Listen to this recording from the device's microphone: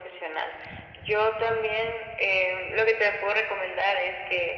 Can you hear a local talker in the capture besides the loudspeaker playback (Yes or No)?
No